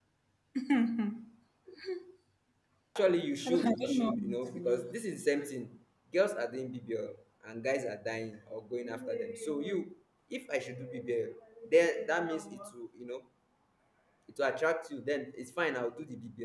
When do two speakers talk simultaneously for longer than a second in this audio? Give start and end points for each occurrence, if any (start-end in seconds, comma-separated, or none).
3.4-4.9